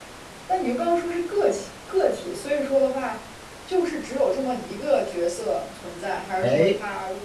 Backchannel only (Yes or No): Yes